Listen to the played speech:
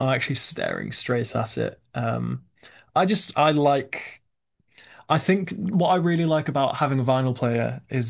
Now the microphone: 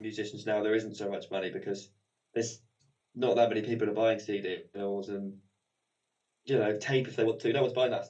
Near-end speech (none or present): present